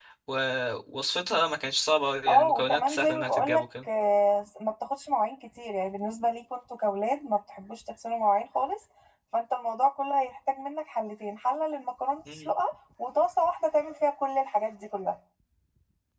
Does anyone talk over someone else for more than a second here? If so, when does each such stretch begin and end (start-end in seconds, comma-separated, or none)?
2.3-3.6